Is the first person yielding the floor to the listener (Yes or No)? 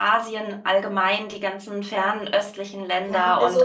Yes